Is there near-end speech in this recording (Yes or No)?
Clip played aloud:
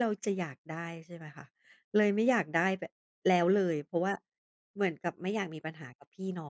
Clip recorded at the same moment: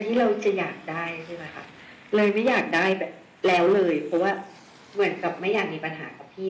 No